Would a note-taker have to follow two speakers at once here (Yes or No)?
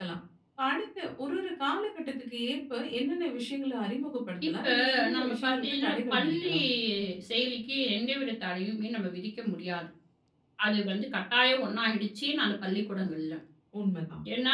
Yes